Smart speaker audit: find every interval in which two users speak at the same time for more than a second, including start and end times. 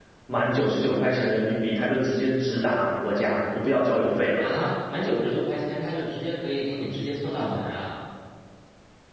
none

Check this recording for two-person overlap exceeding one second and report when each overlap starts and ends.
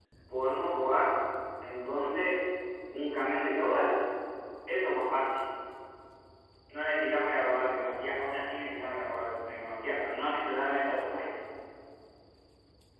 none

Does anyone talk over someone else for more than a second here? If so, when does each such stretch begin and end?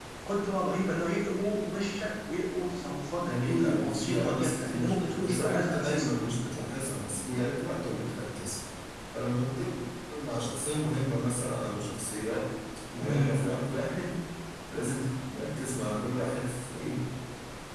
3.3-6.1

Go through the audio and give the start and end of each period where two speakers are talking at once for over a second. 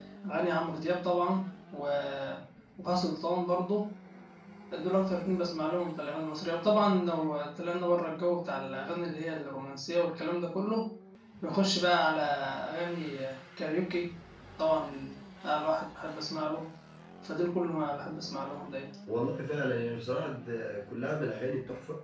none

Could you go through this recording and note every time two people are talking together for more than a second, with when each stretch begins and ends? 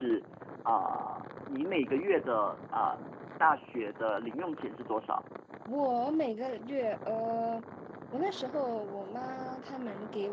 none

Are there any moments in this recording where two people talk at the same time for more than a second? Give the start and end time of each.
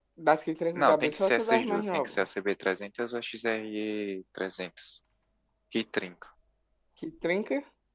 0.7-2.3

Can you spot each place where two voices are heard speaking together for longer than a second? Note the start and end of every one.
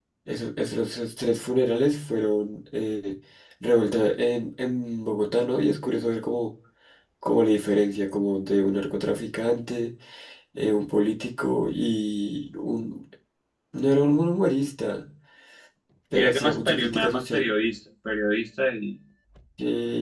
16.1-17.5

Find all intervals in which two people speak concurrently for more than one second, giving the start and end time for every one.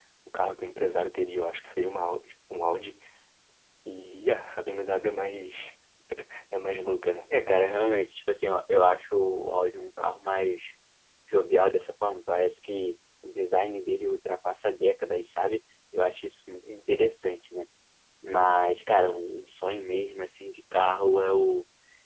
none

